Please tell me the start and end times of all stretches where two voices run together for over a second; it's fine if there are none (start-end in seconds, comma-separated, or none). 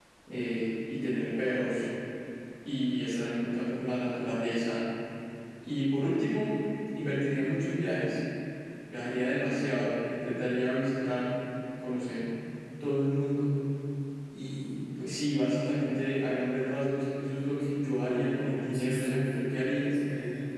18.0-20.0